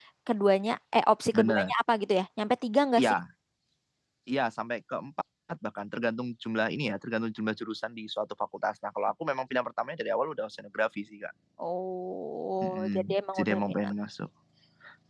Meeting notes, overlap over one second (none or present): present